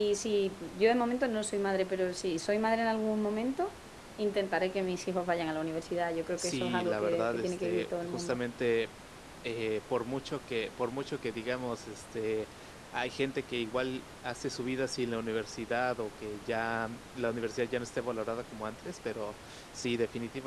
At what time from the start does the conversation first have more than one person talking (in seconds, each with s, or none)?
6.4 s